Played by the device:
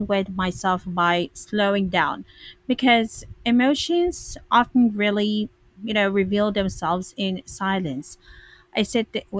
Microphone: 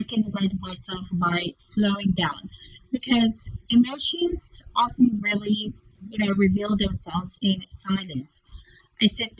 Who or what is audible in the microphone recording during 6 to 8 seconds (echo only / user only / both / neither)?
echo only